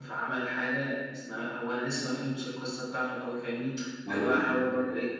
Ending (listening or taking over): listening